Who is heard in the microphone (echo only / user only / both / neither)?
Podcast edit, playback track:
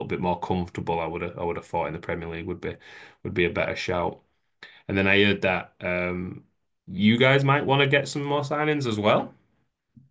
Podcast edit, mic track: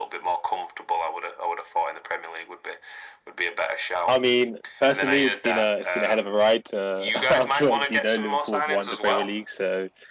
both